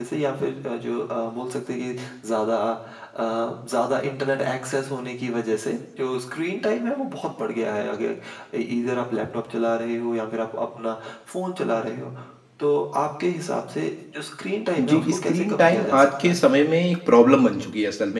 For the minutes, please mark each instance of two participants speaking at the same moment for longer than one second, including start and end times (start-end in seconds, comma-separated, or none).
14.8-16.5